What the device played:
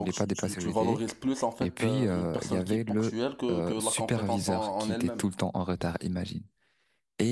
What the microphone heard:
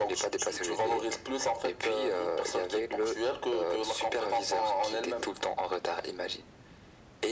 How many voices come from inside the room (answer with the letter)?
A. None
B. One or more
A